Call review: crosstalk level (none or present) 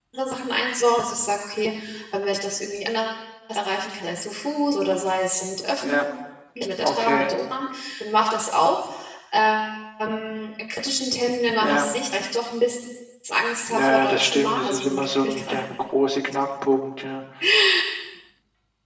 present